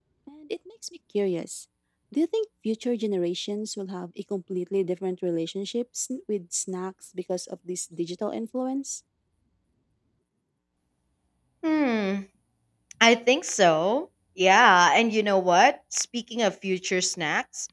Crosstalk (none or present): none